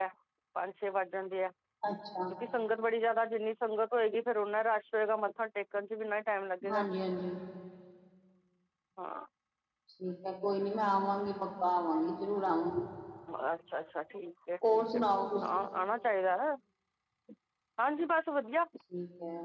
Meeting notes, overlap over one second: none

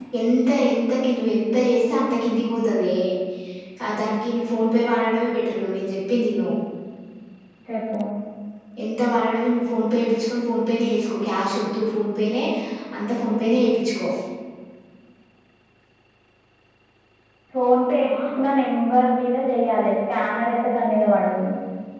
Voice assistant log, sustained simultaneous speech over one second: none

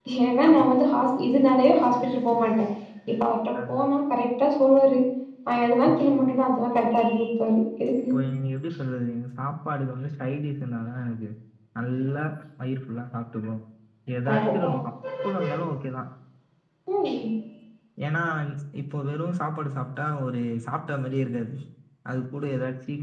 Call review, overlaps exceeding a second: none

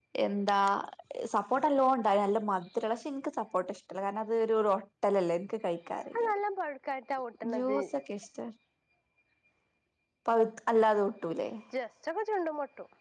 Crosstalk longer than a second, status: none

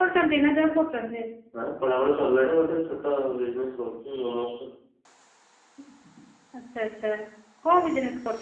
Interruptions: none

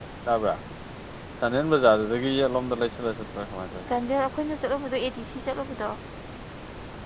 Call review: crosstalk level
none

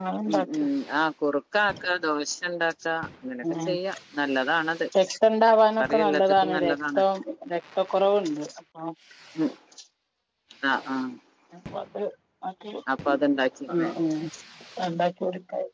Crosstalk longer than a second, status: present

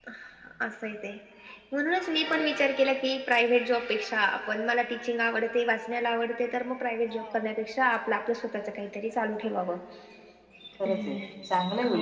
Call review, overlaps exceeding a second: none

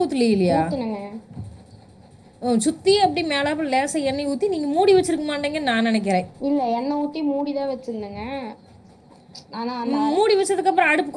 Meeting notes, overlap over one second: none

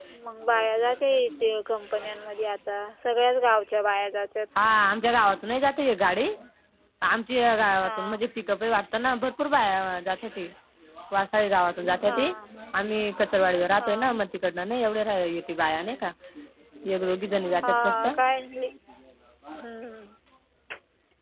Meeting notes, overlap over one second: none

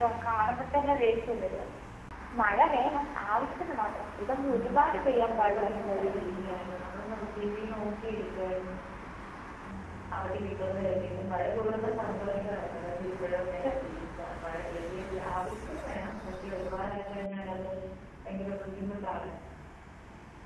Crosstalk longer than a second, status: present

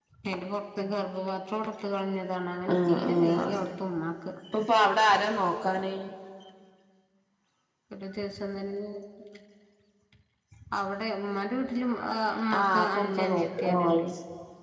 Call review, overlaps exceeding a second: present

